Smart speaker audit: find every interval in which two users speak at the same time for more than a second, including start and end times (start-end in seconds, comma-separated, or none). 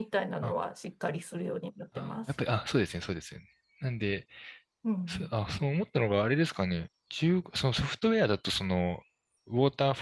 none